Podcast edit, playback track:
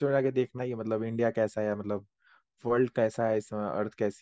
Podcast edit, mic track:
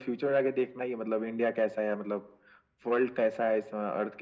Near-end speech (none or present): none